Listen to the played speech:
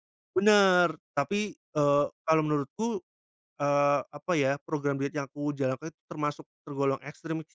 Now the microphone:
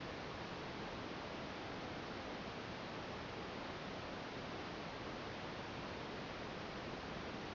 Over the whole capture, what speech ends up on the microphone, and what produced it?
neither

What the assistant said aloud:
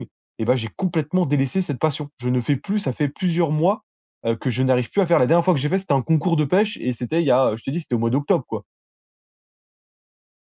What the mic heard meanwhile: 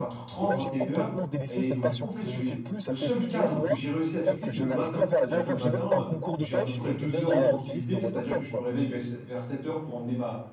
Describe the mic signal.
both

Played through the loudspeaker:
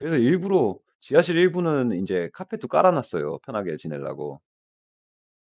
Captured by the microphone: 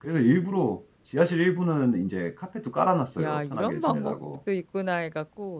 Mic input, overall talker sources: both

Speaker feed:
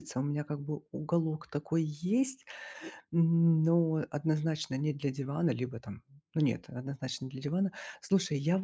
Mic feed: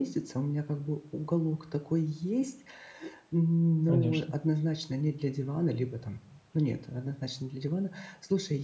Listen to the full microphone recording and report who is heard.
both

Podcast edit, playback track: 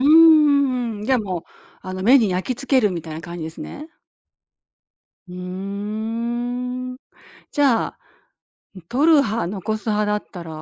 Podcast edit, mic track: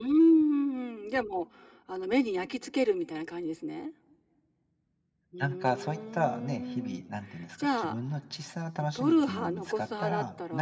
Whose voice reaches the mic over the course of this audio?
both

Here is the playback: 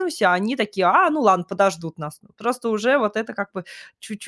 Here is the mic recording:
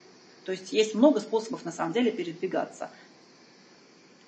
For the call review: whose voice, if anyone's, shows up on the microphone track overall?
user only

